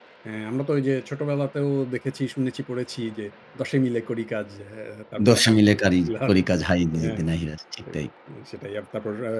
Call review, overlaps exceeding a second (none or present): none